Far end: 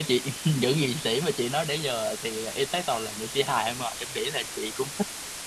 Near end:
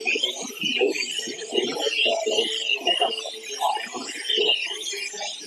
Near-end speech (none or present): none